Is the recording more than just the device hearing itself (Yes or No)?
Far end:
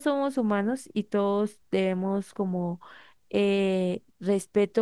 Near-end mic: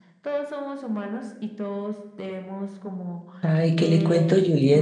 Yes